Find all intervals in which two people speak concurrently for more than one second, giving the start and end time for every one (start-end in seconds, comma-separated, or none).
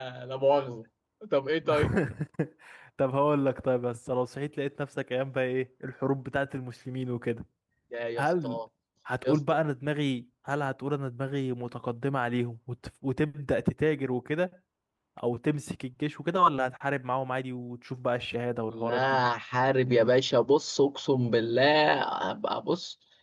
none